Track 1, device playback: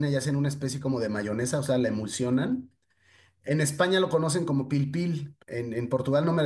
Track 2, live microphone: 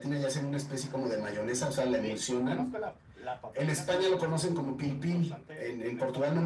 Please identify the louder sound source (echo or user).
echo